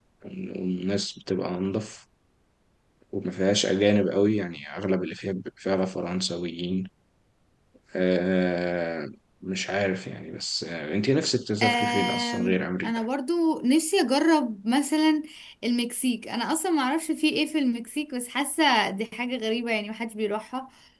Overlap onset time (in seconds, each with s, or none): 11.6 s